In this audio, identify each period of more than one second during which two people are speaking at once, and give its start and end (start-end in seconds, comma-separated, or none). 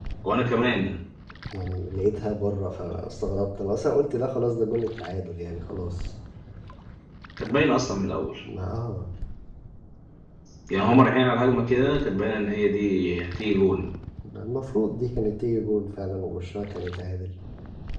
none